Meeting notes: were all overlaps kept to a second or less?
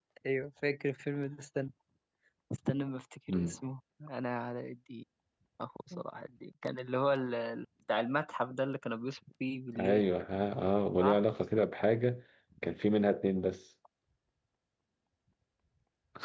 Yes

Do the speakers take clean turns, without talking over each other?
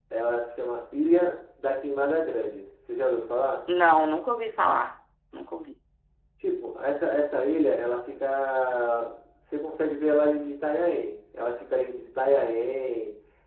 Yes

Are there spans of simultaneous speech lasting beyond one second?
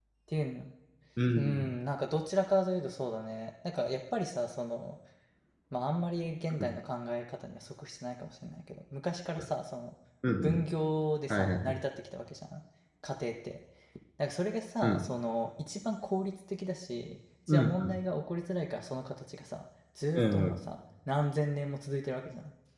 No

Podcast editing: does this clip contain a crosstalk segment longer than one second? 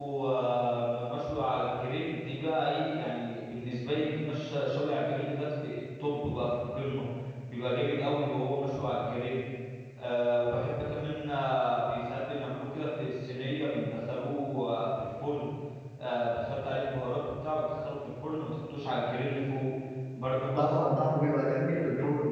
No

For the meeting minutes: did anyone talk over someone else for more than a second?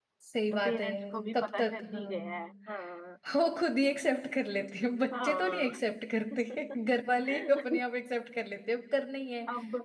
Yes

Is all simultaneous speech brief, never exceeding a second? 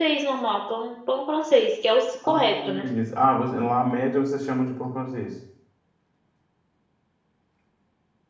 Yes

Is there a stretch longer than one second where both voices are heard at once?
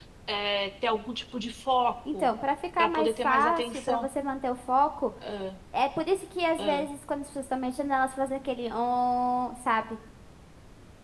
Yes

